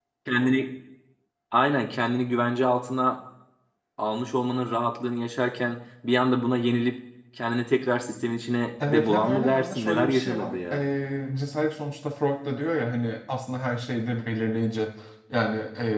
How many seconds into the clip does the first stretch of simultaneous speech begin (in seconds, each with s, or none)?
8.8 s